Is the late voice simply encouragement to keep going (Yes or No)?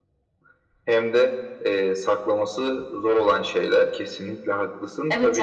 No